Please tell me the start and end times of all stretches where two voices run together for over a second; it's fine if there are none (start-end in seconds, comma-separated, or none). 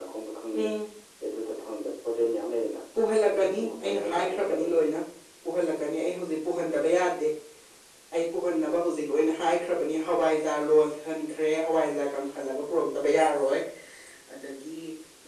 3.3-4.8